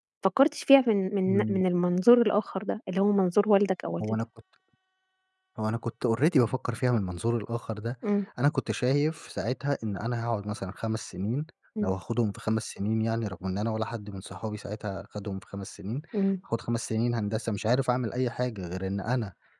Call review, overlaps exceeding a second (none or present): none